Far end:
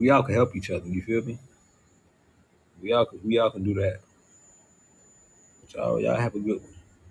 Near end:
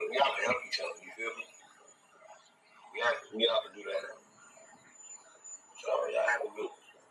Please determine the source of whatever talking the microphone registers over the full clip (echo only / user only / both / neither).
echo only